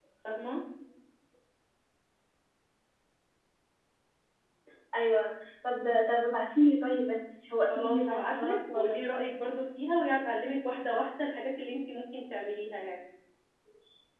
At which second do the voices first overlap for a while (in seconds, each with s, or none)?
7.7 s